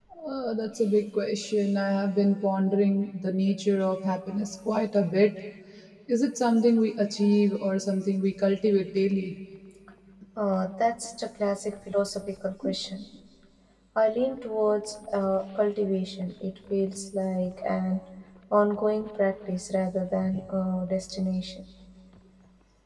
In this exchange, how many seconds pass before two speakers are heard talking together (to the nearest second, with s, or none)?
none